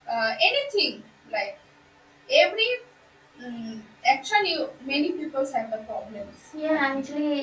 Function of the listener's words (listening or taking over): taking over